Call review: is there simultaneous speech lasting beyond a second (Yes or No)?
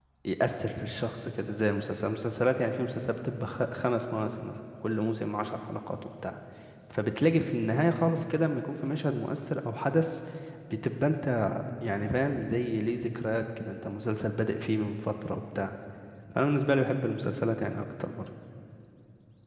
No